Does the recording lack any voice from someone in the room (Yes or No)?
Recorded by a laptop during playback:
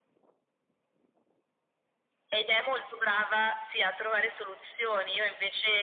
Yes